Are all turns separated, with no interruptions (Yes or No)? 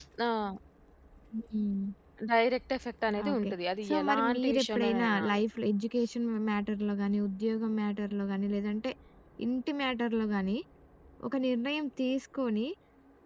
No